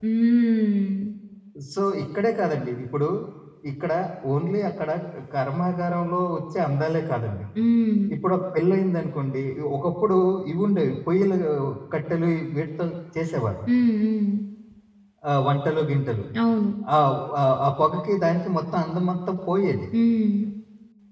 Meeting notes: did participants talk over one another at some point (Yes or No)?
No